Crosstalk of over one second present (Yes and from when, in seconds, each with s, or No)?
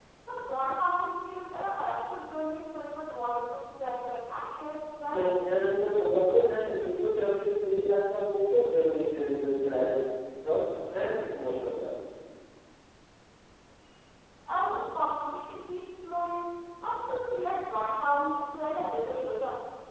No